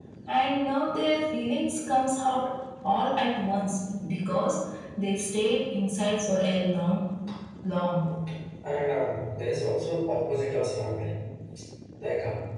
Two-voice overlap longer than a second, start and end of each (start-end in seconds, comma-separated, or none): none